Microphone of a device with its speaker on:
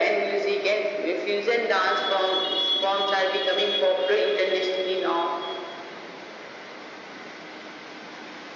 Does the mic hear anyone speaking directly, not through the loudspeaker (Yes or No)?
No